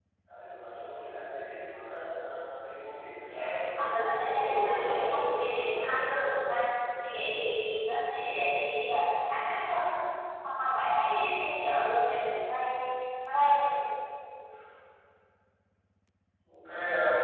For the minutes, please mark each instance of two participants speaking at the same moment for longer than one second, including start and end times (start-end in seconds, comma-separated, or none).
4.3-5.9